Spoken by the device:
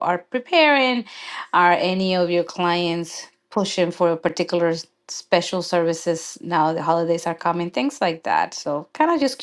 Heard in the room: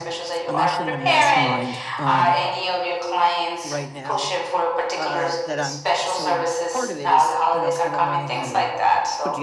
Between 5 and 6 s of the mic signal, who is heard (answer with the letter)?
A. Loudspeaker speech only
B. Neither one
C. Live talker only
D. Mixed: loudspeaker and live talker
D